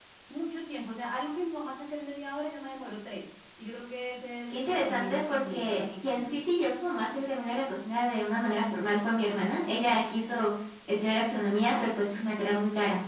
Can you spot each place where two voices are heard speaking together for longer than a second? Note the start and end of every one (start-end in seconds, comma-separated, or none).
4.5-6.3